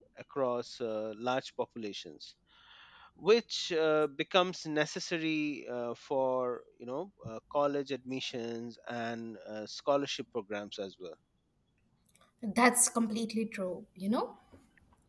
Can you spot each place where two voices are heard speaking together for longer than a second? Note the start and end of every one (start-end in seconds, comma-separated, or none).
none